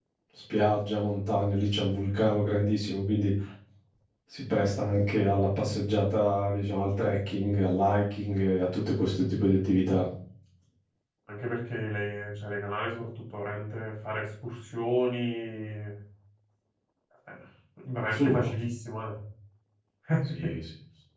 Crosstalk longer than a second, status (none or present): none